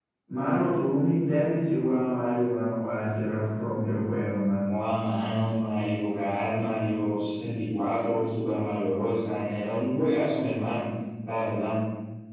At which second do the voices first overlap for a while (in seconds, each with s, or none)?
none